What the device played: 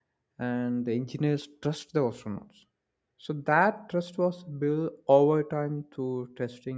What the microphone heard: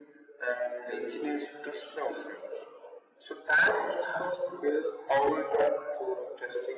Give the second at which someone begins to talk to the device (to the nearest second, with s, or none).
none